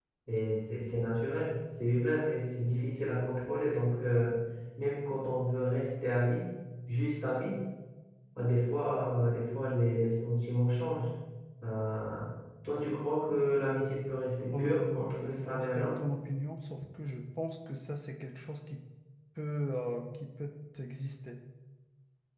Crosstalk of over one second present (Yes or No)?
Yes